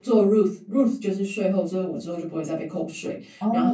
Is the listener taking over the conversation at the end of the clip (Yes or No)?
No